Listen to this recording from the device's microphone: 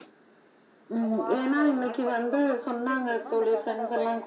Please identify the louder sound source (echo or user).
echo